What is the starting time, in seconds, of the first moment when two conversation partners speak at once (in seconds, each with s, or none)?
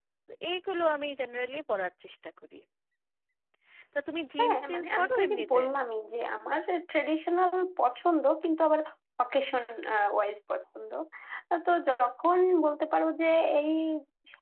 4.4 s